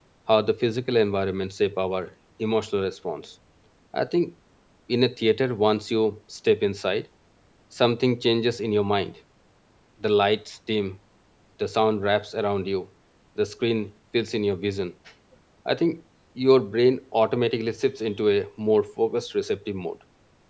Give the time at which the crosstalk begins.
none

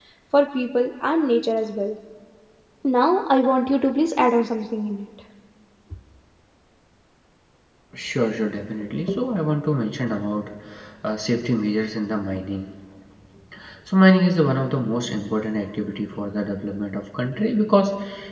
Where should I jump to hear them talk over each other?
none

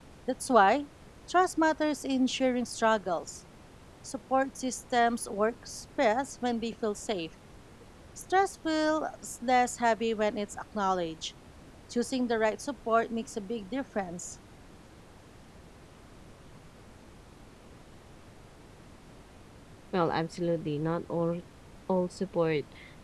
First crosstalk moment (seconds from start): none

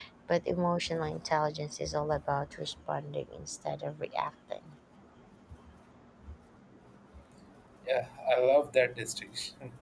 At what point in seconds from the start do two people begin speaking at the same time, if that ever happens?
none

